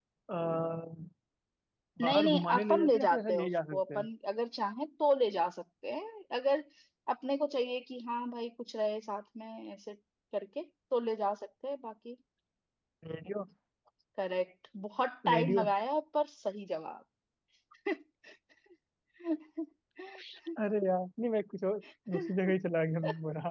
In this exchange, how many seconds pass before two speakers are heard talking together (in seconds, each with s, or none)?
2.0 s